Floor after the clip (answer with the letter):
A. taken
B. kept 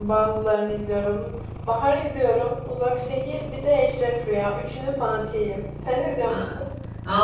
A